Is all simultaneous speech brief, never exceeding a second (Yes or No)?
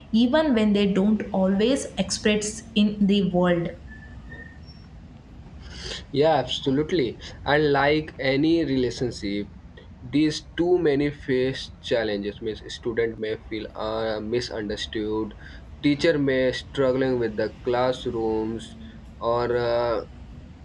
Yes